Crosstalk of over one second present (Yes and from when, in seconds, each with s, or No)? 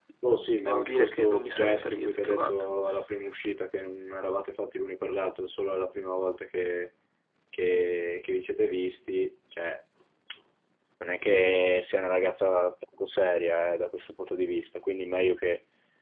Yes, from 0.6 s